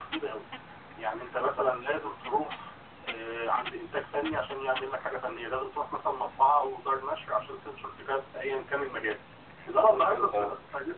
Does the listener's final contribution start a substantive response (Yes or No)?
No